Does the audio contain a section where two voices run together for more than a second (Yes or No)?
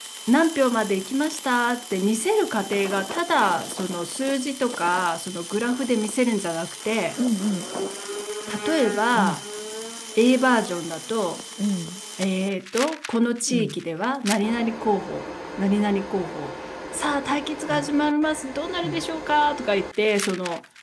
No